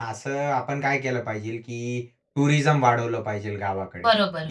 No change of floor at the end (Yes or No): Yes